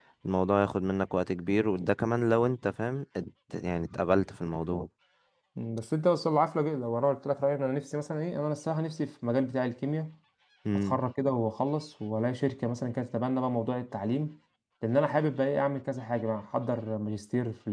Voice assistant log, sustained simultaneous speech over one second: none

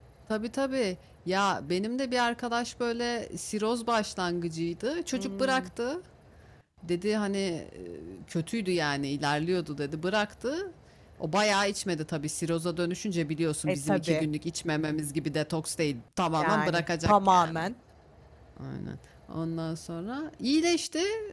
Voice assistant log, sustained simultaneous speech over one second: present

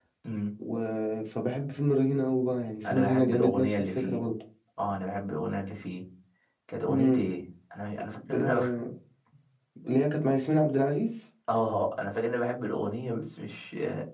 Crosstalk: present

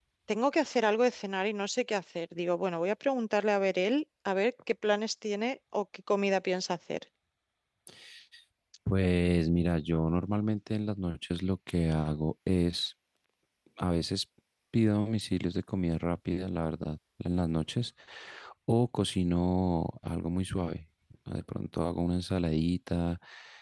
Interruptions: none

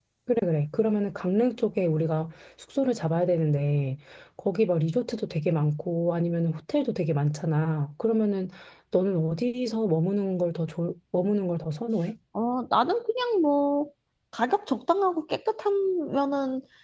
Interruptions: none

